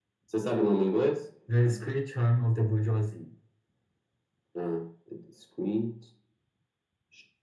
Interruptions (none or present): none